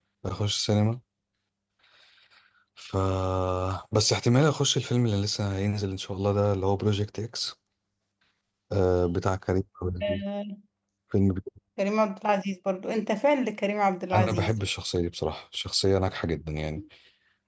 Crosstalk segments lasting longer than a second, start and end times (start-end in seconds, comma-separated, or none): none